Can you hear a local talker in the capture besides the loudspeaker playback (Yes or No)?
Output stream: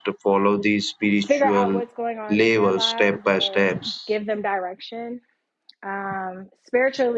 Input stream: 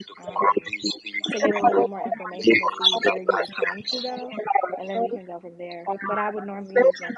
Yes